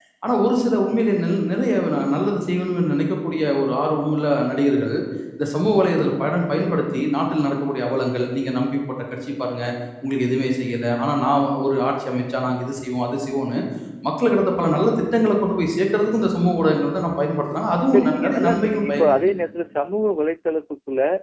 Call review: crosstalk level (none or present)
present